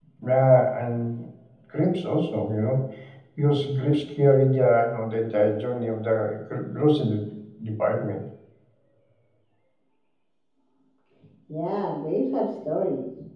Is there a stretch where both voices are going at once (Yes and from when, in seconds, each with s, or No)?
No